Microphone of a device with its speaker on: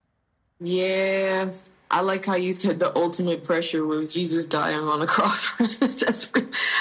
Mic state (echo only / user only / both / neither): echo only